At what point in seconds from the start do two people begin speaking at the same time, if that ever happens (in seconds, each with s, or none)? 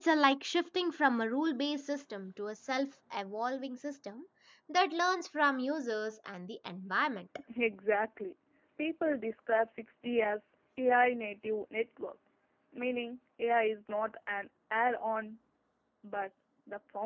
none